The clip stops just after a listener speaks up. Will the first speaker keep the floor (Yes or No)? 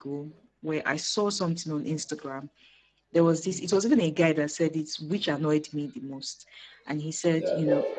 Yes